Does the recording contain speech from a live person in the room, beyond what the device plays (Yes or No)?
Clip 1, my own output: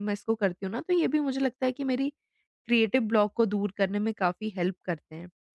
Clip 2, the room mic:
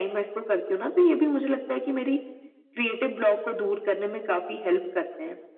No